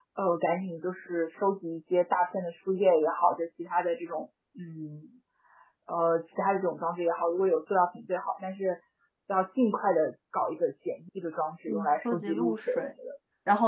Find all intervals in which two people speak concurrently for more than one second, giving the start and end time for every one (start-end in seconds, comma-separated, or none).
11.7-12.9